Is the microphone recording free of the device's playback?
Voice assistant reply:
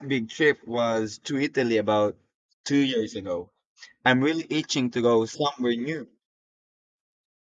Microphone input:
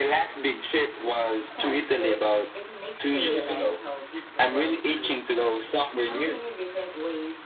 No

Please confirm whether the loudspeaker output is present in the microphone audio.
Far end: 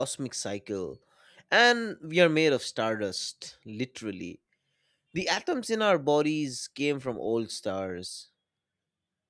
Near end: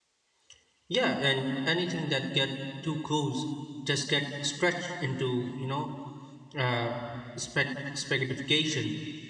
No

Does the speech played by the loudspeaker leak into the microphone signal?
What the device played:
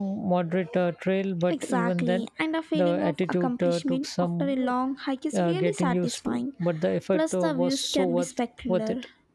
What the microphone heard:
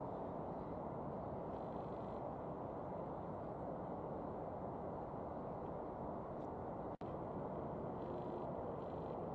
No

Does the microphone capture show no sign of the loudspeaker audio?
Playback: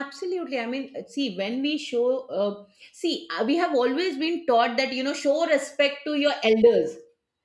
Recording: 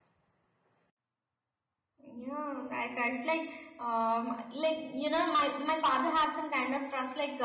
Yes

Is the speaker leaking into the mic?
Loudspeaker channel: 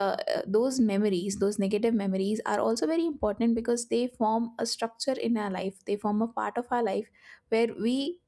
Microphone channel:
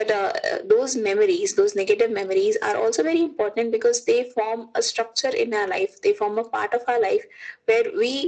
Yes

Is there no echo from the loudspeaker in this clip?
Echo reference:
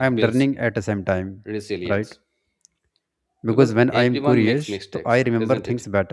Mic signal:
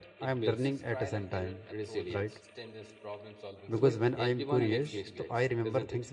No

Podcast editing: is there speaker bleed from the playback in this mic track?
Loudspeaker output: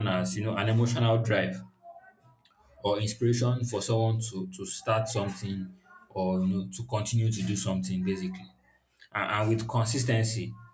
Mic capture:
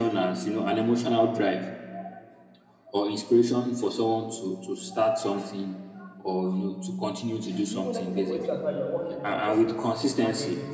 Yes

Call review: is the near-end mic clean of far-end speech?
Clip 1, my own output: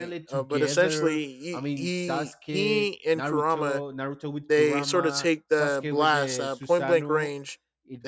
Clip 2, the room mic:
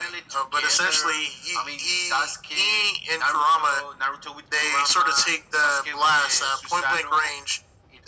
No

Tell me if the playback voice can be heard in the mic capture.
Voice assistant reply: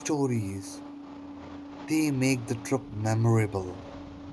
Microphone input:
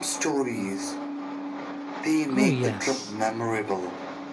Yes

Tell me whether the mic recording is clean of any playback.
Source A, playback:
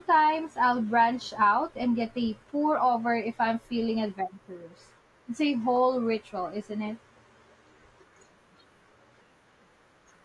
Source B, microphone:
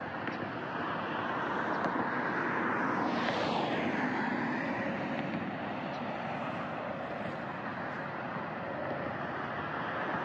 Yes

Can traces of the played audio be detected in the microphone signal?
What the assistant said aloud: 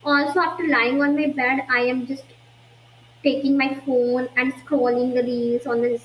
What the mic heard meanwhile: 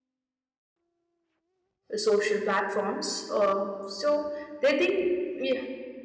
No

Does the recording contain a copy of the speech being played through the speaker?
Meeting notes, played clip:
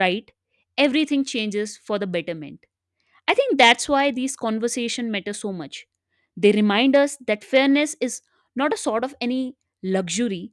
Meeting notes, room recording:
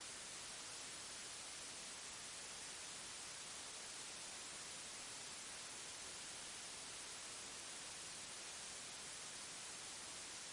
No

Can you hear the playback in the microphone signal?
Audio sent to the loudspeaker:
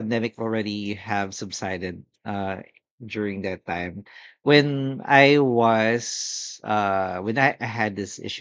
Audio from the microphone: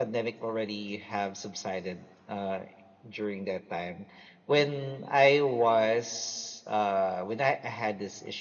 Yes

